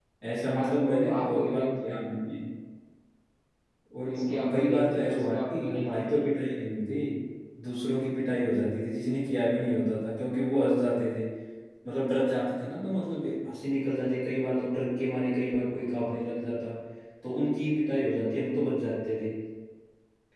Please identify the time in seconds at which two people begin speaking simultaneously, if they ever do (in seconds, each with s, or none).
0.5 s